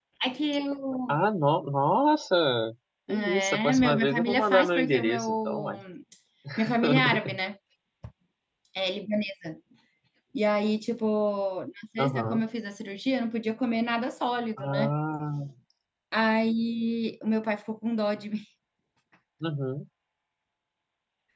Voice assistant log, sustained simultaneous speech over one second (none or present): present